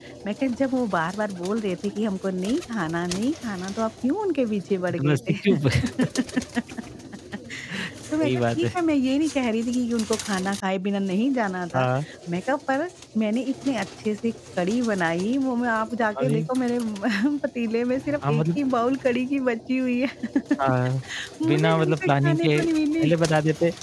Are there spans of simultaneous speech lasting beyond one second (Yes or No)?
Yes